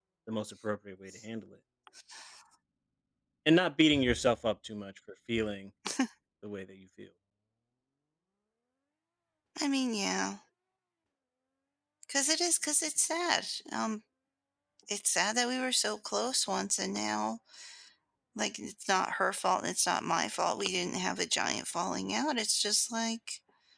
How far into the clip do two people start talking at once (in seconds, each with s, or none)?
none